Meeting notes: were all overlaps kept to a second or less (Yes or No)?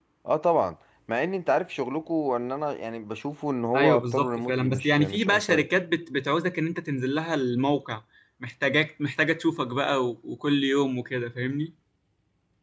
No